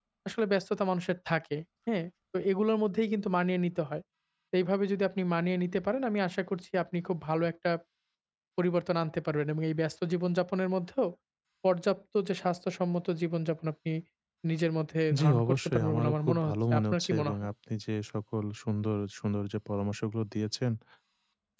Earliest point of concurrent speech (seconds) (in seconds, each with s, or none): 15.2 s